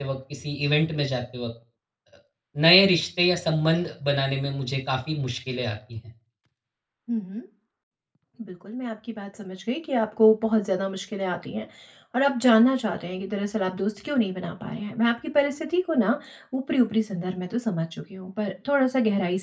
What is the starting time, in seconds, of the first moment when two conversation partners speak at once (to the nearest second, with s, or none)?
none